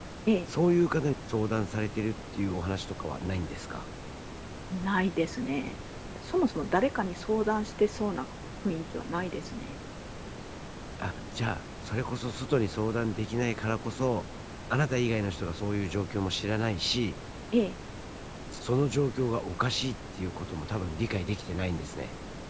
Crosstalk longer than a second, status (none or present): none